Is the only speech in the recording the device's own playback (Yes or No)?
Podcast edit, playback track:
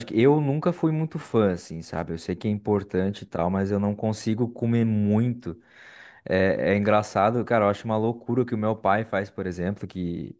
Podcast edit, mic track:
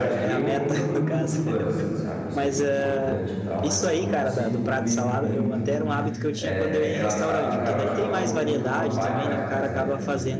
No